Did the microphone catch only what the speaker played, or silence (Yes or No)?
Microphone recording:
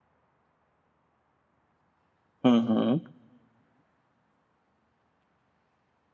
No